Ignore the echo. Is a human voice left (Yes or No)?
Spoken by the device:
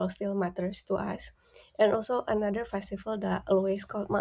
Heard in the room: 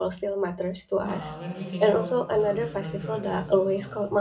Yes